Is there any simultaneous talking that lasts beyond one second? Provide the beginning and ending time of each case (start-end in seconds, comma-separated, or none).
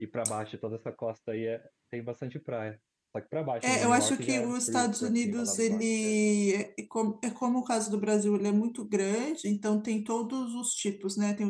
3.6-6.2